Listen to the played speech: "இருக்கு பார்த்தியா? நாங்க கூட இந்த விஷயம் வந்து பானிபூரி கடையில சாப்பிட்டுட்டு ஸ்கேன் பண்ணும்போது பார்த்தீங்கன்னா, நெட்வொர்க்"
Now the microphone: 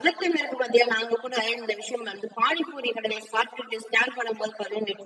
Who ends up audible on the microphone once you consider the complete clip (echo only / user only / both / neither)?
echo only